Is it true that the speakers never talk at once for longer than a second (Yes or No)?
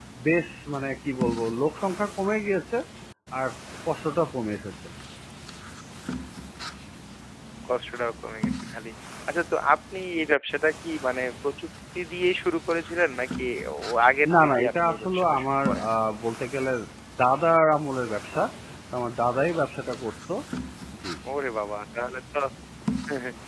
No